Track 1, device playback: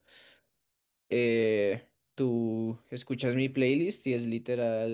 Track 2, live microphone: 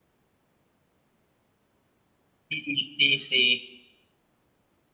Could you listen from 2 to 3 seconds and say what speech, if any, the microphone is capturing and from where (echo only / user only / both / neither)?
user only